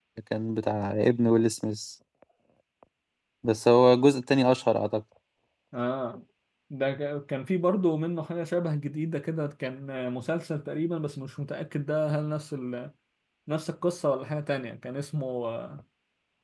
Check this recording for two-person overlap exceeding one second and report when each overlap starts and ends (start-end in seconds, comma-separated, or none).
none